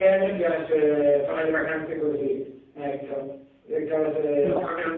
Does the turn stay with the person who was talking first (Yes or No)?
Yes